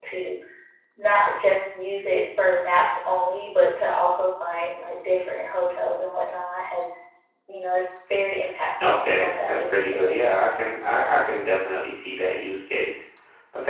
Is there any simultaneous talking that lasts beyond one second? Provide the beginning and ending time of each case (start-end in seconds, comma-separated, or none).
8.8-10.2